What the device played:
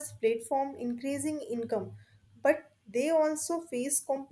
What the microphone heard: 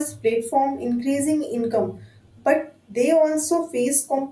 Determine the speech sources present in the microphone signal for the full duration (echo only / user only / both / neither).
echo only